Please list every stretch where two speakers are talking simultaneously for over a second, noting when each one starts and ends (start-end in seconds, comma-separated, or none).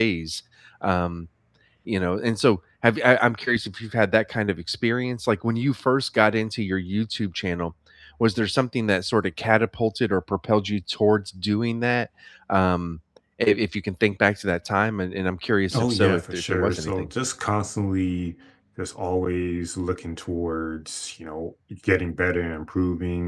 15.7-17.1